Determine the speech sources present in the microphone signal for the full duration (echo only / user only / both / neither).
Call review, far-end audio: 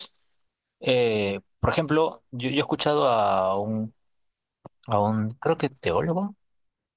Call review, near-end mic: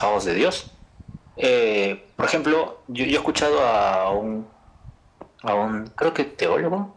echo only